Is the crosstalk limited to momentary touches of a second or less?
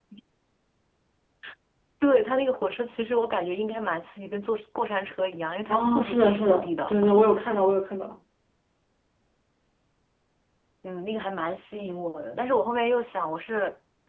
No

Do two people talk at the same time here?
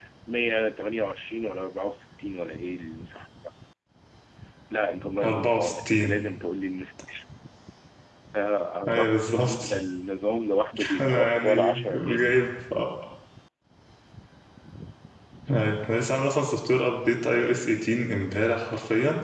Yes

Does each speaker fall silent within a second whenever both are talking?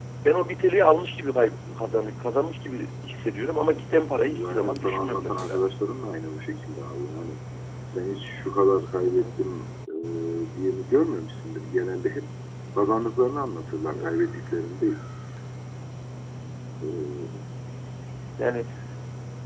No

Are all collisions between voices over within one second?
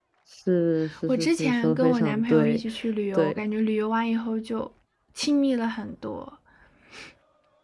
No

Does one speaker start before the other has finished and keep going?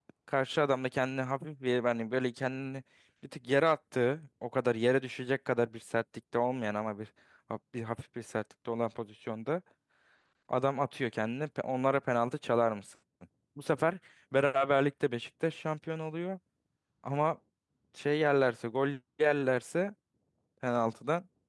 No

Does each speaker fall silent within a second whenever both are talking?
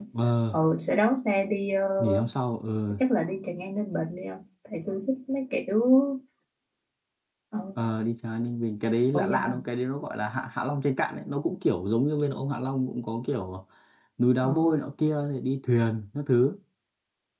Yes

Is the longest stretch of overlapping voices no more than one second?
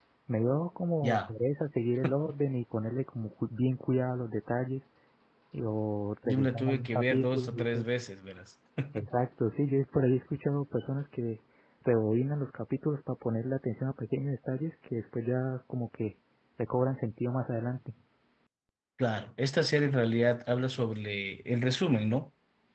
No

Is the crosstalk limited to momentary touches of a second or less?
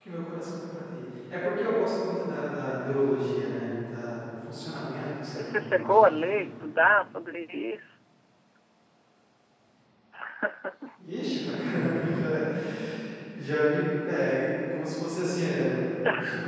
No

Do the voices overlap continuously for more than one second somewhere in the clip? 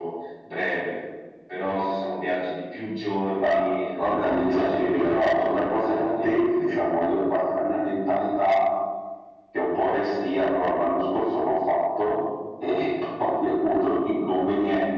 Yes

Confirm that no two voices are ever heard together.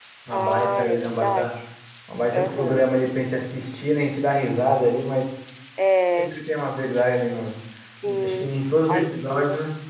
No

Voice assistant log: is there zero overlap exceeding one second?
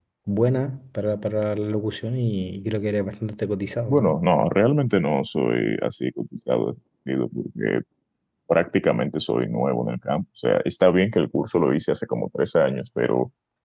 Yes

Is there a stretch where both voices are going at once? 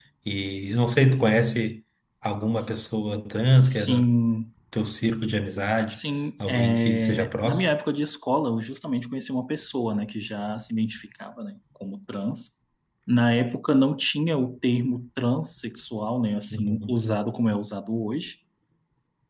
Yes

